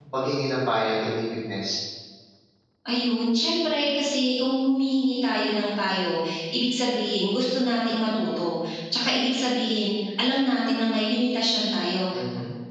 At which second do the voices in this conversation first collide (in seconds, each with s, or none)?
none